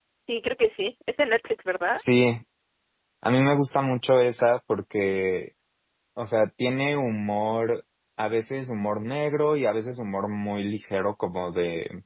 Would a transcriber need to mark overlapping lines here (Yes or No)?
No